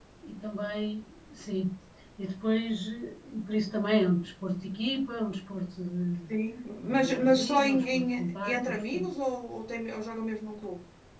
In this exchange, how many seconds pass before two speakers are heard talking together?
7 s

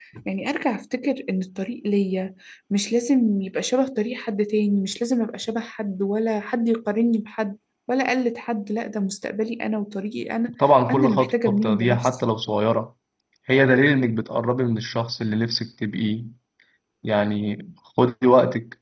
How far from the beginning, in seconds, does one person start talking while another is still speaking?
11 s

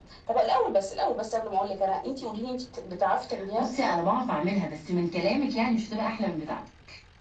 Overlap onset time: none

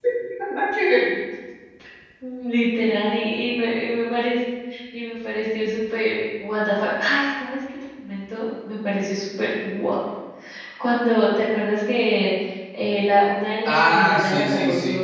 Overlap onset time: 14 s

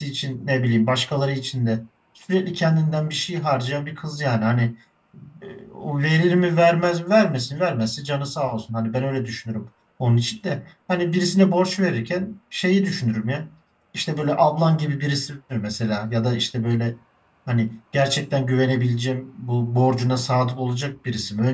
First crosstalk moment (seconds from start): none

